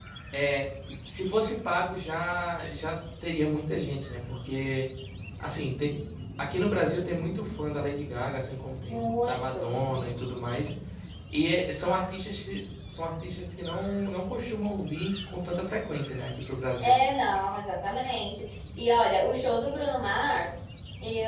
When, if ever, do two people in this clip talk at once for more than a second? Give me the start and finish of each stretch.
8.9-10.2

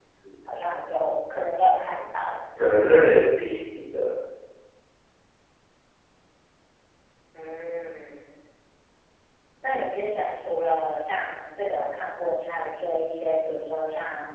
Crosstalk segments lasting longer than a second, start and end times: none

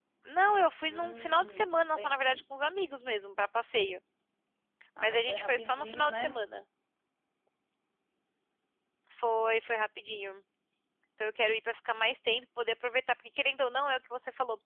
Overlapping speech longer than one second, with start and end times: 0.9-2.4, 5.0-6.4

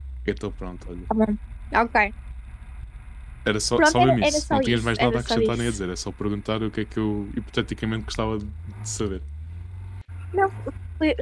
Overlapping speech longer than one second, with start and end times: 3.8-5.7

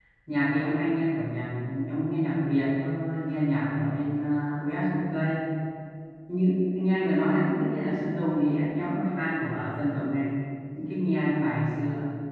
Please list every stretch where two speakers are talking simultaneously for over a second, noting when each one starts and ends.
none

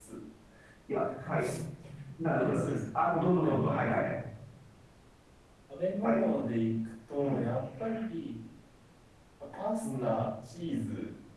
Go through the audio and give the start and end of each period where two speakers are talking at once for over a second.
2.3-4.1

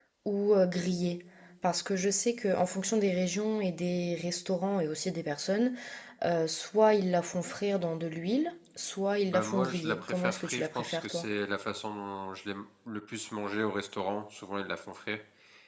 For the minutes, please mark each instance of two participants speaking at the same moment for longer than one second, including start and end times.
9.2-11.2

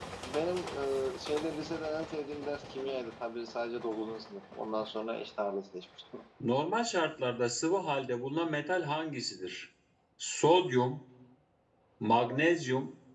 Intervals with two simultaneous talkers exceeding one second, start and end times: none

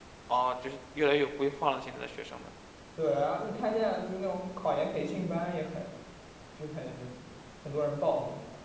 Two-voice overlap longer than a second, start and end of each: none

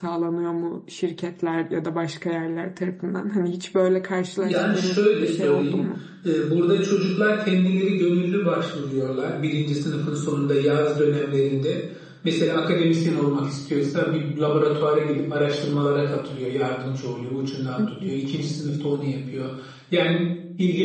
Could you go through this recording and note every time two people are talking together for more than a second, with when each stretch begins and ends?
4.4-5.8

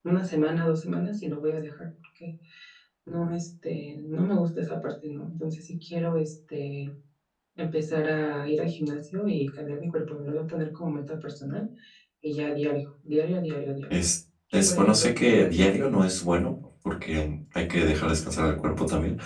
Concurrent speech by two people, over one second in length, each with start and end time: 14.5-16.0

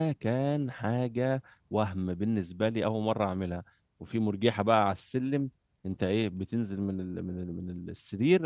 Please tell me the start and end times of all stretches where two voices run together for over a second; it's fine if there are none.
none

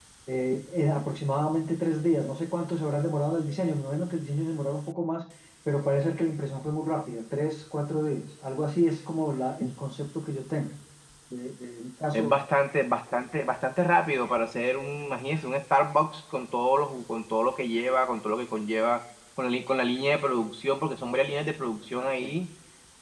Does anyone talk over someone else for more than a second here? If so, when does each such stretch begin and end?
none

